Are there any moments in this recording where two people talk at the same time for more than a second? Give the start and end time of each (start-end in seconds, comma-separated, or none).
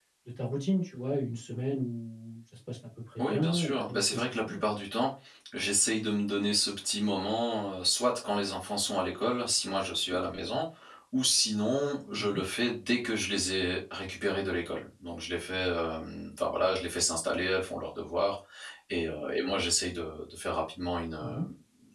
3.2-4.6